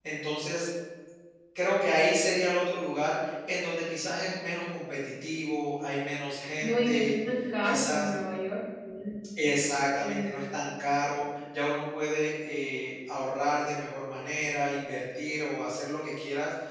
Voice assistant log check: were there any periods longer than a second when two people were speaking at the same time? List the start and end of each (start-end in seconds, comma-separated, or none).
none